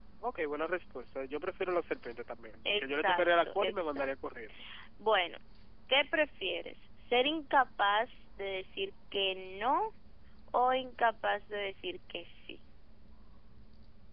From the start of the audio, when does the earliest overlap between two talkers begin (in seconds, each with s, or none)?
2.6 s